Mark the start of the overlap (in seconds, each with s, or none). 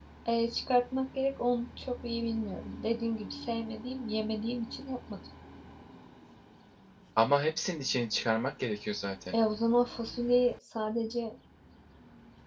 none